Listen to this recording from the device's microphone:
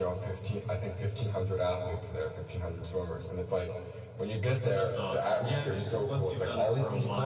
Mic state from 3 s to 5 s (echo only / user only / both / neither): echo only